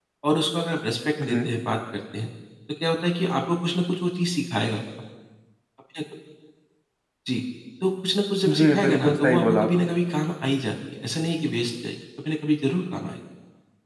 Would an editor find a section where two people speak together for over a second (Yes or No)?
Yes